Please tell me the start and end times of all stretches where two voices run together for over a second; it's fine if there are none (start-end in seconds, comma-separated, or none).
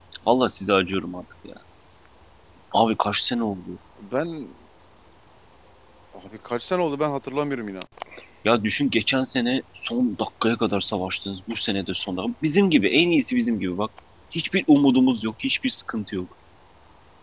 none